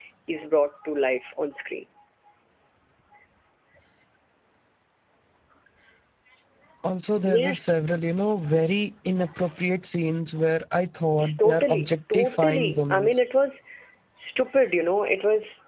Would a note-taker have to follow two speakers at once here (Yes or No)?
Yes